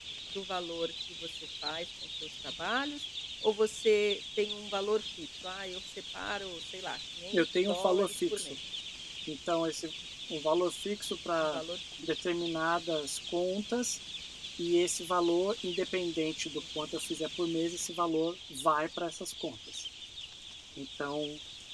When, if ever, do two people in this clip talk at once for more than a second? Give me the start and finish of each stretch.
7.3-8.5

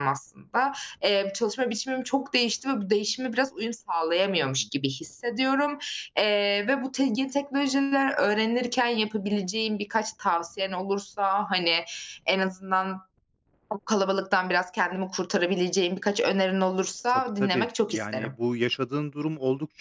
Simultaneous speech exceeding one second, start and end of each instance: 17.1-18.3

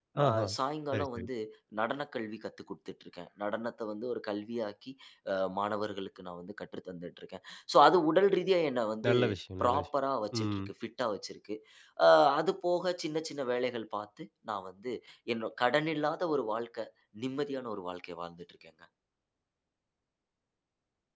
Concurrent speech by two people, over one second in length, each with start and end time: none

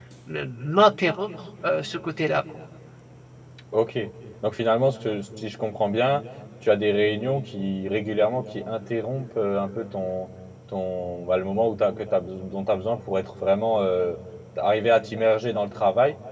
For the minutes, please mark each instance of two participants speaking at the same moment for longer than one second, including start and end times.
none

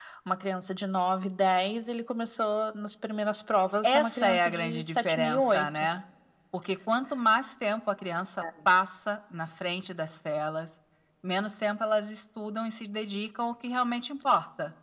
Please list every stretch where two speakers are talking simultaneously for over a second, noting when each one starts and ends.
3.8-5.9

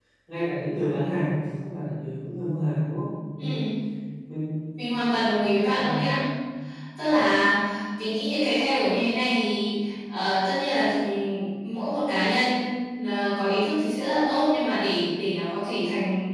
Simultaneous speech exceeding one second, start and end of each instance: none

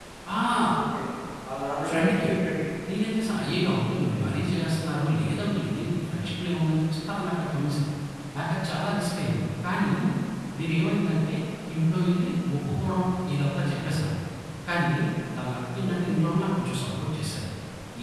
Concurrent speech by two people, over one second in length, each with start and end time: none

